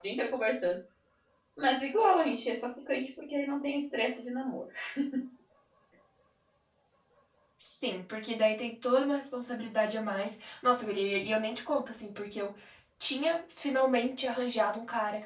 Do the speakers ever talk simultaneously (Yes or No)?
No